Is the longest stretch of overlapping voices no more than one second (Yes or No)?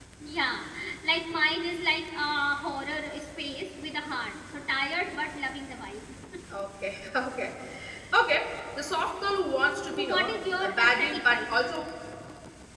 No